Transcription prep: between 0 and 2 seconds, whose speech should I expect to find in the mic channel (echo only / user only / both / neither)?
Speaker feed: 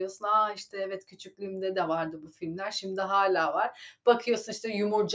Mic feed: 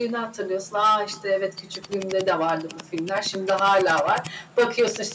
echo only